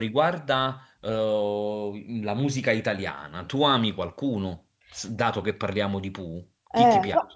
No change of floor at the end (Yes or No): No